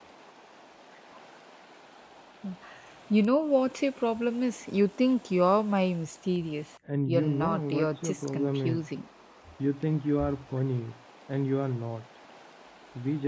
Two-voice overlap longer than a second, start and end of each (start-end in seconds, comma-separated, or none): 7.1-8.9